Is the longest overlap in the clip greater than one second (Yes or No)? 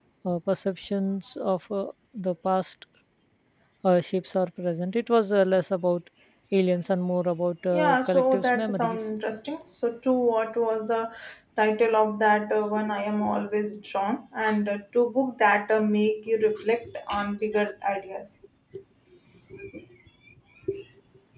Yes